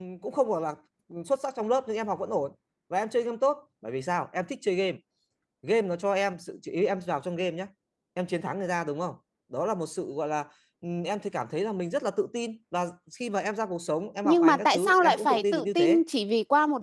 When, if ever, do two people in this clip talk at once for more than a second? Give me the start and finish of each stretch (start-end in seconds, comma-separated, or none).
14.2-16.0